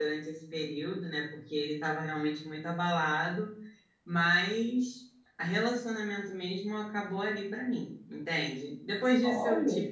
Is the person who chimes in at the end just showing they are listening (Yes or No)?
Yes